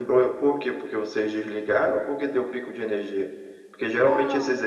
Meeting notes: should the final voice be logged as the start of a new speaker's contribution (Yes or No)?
No